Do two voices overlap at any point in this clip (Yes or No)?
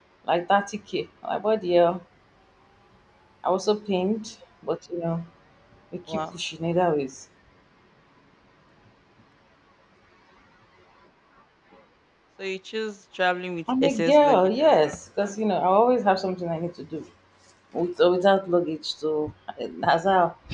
Yes